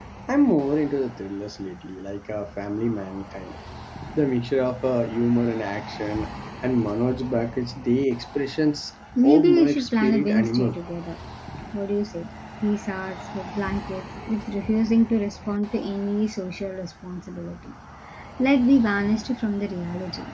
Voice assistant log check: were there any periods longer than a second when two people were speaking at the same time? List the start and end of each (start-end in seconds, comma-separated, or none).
9.2-10.8